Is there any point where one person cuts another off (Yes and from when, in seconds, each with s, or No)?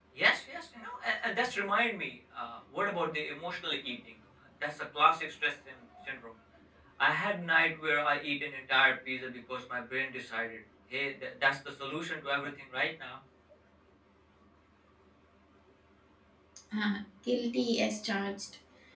No